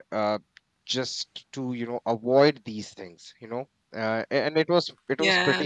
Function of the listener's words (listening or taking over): listening